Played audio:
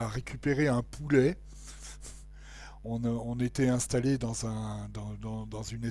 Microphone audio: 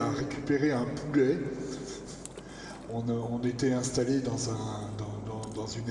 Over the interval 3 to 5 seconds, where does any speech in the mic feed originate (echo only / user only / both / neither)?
echo only